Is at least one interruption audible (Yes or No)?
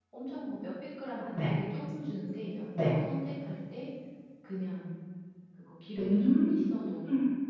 Yes